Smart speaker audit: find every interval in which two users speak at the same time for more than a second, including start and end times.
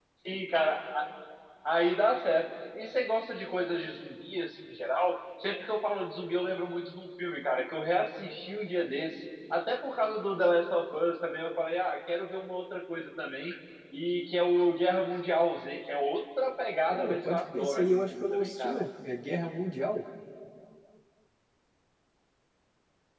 16.9-18.8

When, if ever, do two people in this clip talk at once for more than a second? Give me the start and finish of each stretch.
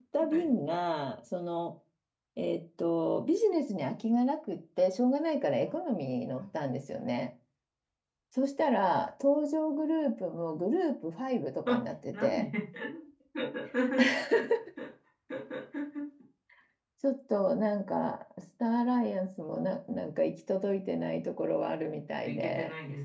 none

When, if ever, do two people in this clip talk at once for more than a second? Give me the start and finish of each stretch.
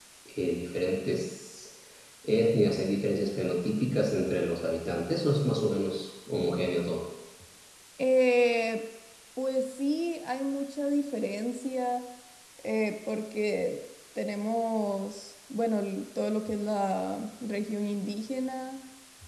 none

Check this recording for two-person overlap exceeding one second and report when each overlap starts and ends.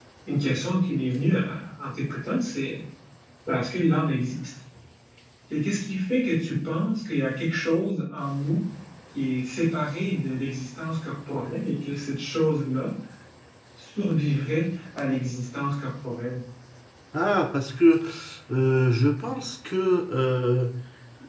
none

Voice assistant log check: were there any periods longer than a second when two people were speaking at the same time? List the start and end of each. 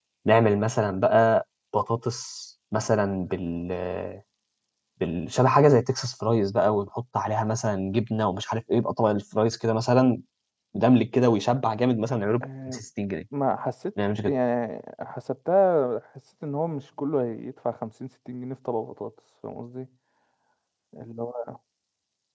none

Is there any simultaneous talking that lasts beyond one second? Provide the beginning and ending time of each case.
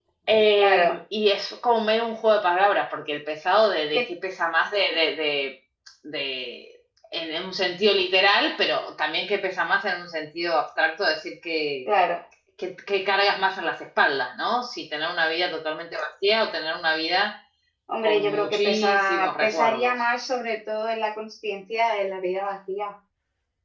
18.0-19.9

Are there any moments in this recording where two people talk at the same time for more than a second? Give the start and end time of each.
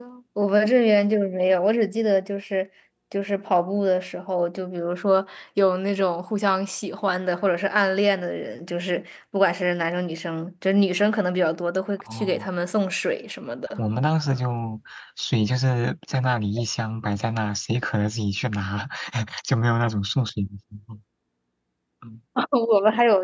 none

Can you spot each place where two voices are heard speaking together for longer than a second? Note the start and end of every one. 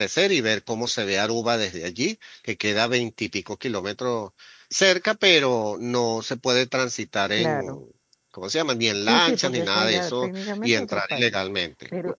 9.0-11.4

